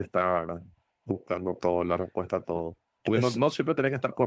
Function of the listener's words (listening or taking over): listening